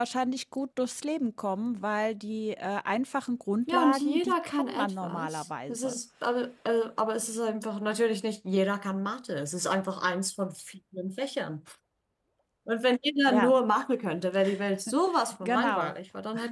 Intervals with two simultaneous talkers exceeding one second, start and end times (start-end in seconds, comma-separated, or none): 3.7-6.0